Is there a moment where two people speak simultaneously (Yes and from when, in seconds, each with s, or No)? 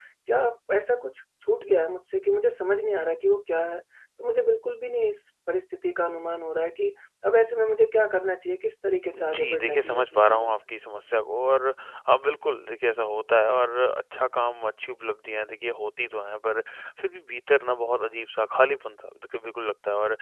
Yes, from 9.1 s